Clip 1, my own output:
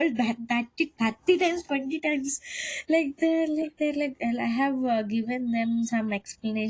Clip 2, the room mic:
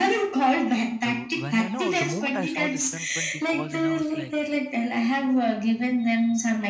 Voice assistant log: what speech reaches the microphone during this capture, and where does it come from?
both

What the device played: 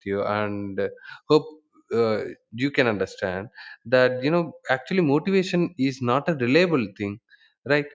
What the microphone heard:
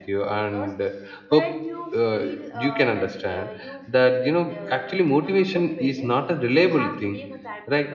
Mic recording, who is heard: both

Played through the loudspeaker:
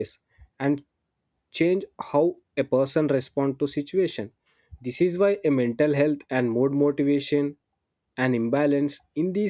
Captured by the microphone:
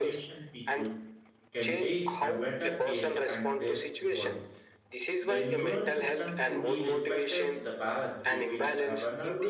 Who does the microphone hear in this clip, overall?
both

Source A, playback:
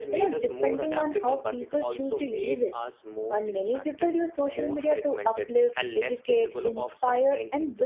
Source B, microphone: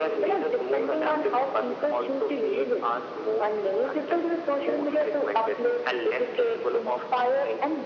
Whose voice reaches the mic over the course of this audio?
echo only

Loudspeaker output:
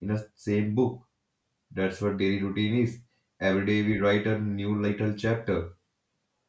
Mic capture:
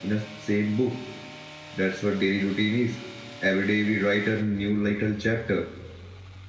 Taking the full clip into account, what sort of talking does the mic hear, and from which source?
echo only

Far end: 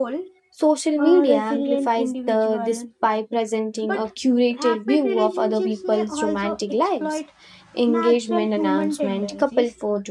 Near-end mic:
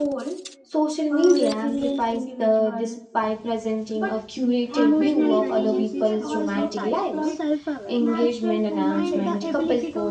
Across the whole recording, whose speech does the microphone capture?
both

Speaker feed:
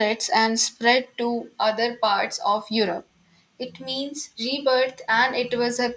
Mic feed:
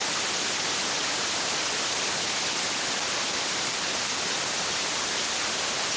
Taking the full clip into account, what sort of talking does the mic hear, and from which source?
neither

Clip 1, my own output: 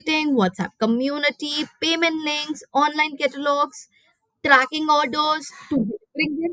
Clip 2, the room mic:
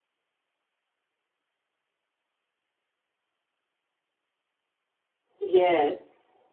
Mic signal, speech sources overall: user only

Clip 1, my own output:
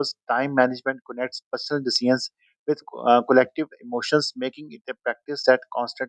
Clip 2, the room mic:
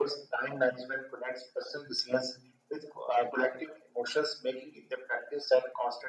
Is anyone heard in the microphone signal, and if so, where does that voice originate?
echo only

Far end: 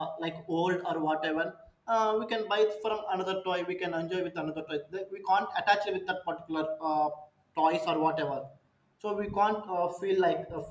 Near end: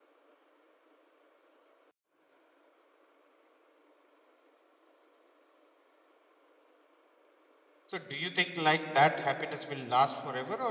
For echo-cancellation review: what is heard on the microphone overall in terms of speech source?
user only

